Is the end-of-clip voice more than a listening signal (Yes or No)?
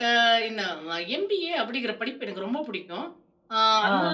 No